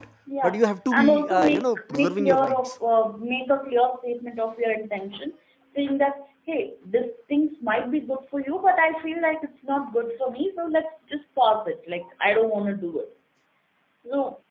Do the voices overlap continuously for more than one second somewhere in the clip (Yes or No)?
Yes